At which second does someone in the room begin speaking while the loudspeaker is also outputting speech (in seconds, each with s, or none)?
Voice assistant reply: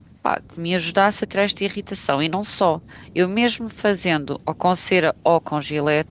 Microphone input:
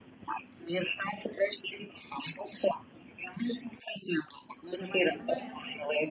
4.7 s